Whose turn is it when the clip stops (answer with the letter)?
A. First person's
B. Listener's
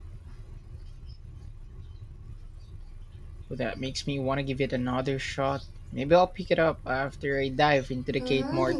B